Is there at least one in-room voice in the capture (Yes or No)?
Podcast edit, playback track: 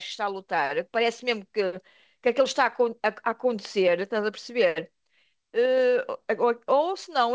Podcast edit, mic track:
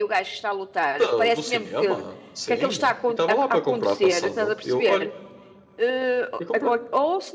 Yes